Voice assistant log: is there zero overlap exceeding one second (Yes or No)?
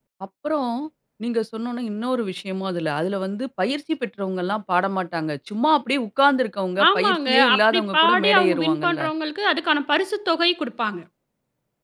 No